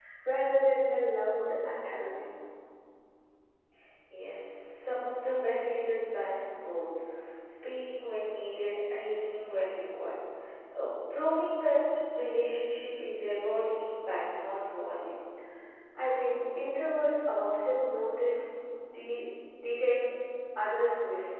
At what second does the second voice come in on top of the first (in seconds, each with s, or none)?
none